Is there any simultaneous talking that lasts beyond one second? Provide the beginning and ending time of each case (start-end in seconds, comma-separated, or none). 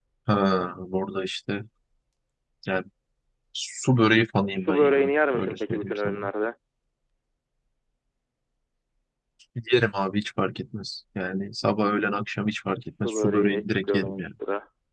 4.5-6.2, 13.0-14.3